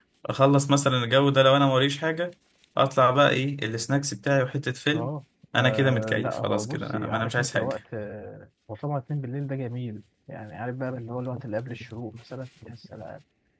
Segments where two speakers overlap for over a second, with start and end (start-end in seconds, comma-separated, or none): 5.6-7.8